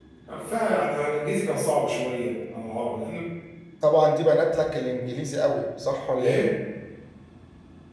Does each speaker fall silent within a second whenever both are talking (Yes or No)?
Yes